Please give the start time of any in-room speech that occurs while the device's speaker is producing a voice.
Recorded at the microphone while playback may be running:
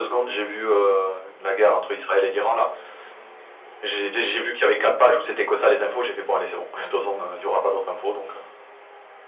none

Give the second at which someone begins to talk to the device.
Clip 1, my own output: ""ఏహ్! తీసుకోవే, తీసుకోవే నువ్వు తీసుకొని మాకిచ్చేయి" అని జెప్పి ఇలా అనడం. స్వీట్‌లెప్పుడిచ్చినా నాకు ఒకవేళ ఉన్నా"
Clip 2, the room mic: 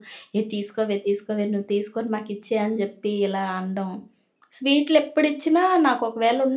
none

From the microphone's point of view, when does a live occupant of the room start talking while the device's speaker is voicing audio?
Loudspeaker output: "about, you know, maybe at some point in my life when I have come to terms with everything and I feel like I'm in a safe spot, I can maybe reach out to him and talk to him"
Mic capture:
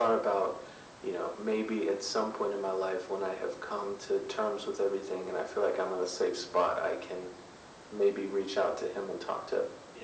none

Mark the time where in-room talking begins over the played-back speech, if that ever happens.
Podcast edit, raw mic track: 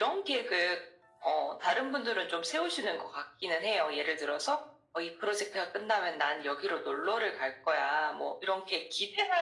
none

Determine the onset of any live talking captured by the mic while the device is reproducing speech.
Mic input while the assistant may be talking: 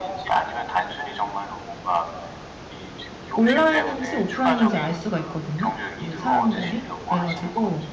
3.4 s

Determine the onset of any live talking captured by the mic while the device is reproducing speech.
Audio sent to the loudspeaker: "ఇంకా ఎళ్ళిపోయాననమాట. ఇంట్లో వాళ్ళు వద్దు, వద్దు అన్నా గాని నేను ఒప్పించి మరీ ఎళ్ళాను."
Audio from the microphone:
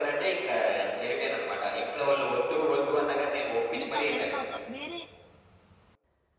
3.8 s

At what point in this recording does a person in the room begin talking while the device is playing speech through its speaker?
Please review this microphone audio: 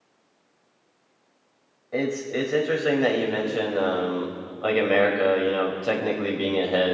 1.9 s

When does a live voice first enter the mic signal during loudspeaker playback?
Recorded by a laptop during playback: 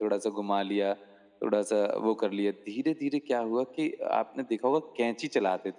none

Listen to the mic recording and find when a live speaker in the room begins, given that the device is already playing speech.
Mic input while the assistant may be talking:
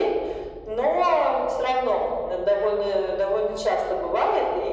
none

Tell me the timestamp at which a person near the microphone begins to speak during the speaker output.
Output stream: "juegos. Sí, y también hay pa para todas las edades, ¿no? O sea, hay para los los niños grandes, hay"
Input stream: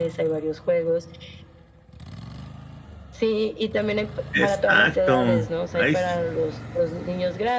4.3 s

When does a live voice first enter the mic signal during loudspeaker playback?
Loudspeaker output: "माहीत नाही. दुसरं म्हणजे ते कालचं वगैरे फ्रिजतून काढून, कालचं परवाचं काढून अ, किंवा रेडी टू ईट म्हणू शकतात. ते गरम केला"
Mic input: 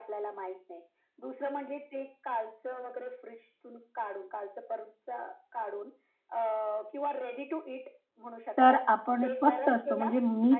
8.6 s

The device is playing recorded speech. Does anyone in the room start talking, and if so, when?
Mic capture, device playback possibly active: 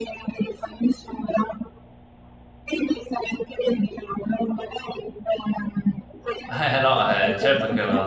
6.5 s

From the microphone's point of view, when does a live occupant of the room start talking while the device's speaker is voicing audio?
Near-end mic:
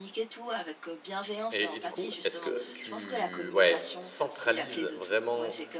1.5 s

